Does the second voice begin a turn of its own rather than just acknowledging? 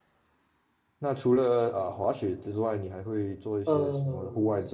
Yes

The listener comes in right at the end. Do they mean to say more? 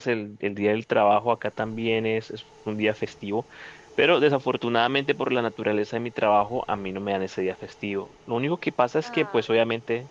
No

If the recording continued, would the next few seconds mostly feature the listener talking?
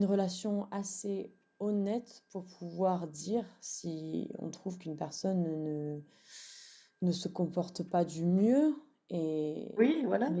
No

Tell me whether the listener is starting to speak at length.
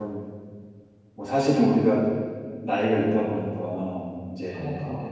No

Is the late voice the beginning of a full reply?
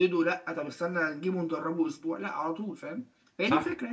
Yes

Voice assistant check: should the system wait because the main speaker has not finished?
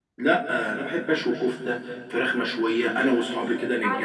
Yes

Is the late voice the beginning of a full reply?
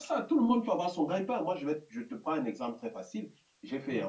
No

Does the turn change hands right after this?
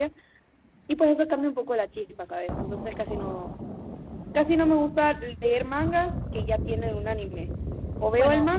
No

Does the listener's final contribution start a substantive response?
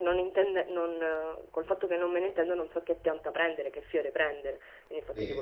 No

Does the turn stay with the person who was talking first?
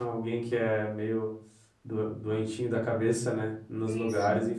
No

